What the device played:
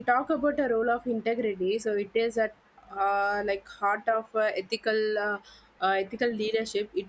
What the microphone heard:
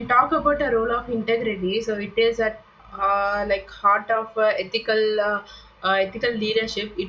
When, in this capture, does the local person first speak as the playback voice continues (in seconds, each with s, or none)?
none